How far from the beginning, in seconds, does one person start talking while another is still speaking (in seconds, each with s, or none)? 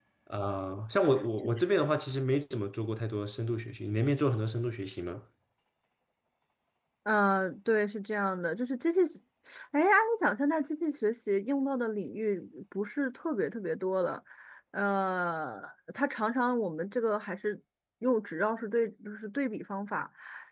none